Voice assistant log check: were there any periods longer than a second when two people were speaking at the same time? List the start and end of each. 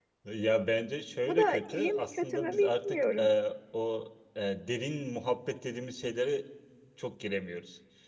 1.2-3.3

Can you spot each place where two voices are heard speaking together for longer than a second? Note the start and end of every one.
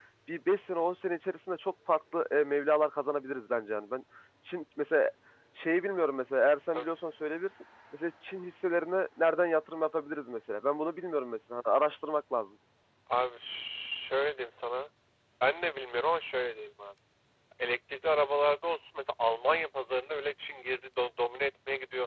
none

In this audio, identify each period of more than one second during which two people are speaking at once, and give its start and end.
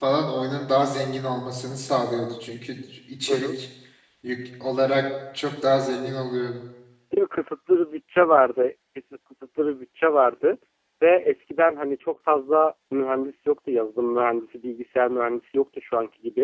none

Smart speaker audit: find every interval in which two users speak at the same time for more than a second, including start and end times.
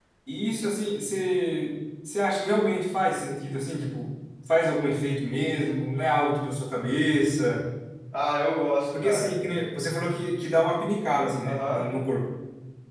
none

